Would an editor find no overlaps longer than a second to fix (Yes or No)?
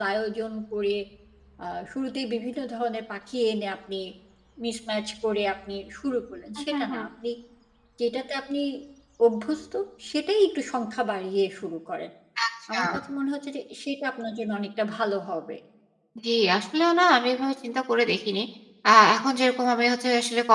Yes